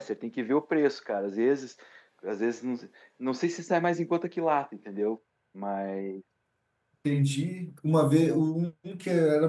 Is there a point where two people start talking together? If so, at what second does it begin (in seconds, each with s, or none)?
none